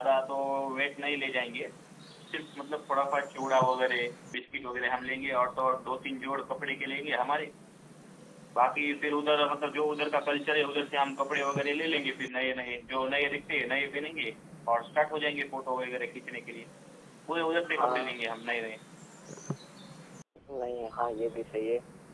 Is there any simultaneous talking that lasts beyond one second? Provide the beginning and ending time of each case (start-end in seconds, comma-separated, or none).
none